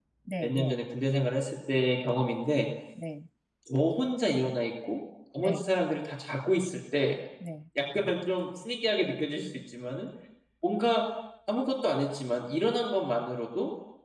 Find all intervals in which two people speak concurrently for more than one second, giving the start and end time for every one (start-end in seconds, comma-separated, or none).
none